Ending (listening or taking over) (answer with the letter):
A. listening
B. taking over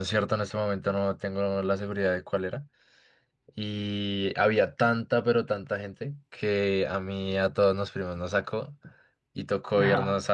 A